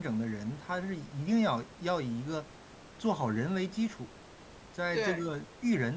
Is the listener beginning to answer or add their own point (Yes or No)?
No